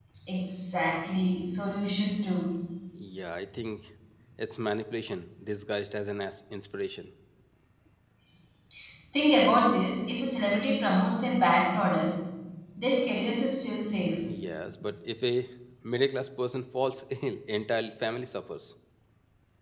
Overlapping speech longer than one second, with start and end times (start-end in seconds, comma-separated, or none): none